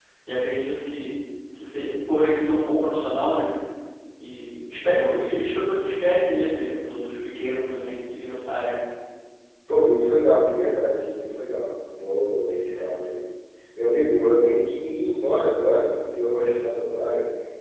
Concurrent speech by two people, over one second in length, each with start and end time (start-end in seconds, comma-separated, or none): none